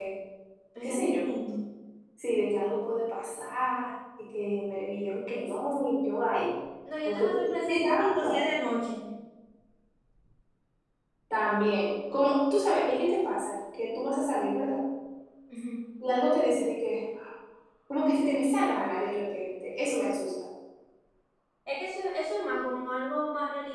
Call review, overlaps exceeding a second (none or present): present